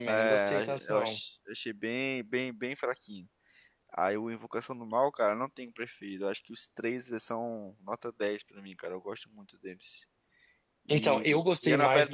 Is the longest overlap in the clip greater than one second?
Yes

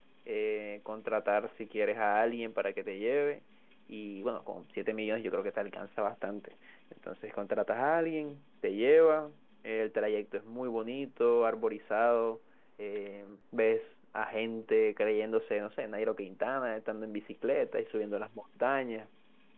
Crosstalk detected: No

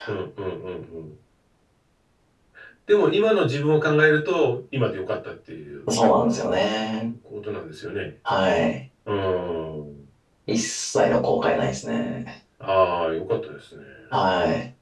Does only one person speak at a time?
Yes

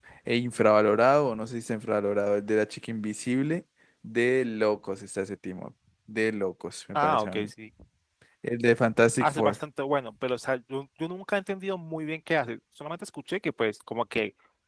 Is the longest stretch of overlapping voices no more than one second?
Yes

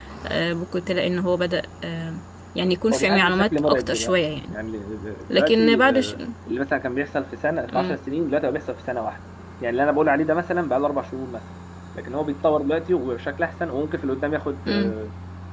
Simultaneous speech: Yes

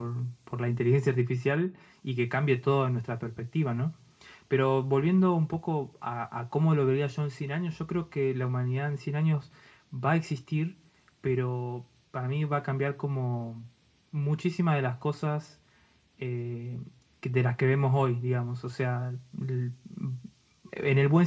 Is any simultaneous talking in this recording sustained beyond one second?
No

